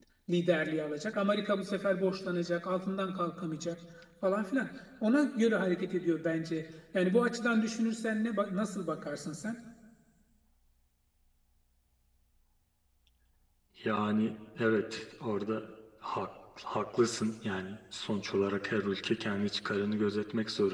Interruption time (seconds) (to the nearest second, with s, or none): none